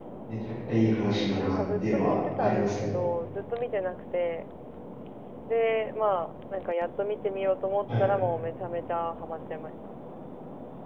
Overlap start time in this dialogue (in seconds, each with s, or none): 1.4 s